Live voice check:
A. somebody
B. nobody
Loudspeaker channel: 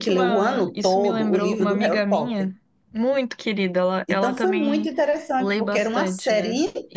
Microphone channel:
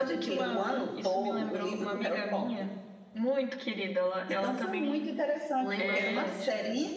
A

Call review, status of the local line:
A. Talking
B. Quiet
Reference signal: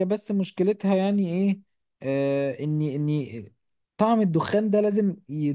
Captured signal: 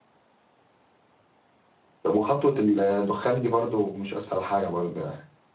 A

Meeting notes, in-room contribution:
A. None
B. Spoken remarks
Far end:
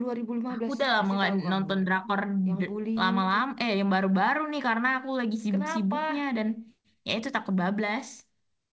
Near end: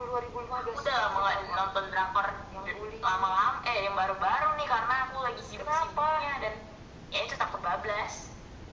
A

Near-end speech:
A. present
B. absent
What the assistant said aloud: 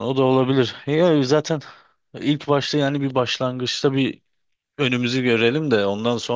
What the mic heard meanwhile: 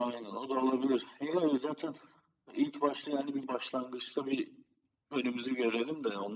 B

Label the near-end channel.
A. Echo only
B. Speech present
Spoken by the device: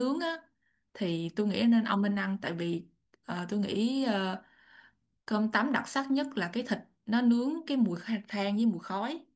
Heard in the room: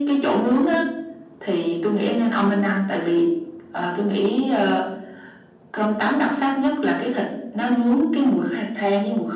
A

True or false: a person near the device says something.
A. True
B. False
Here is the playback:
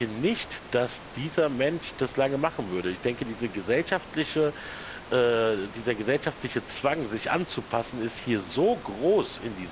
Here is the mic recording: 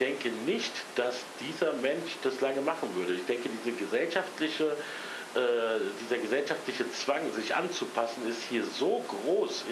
B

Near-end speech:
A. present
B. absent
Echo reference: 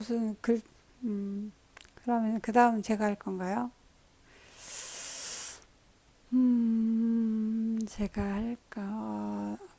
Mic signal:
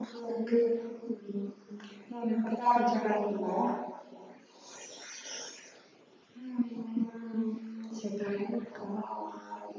B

